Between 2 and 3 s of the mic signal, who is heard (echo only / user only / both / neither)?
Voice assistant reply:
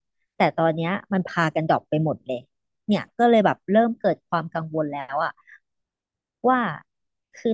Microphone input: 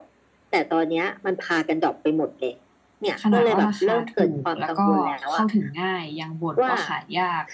echo only